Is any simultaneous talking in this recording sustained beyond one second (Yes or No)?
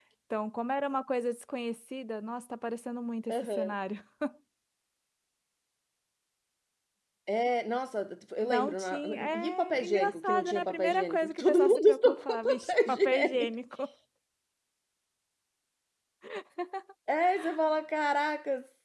Yes